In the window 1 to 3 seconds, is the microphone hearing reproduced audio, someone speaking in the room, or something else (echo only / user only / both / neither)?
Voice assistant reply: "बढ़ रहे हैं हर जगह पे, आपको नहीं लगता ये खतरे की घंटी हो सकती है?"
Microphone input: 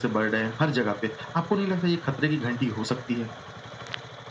echo only